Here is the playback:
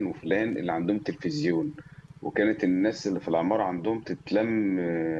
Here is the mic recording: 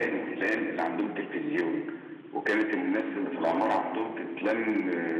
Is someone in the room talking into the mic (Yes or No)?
No